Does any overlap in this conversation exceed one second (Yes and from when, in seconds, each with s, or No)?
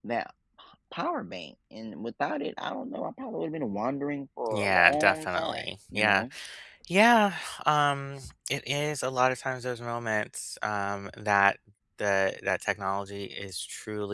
Yes, from 4.5 s